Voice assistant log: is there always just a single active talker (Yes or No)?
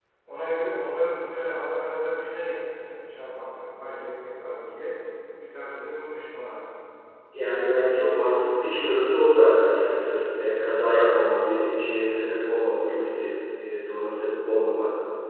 Yes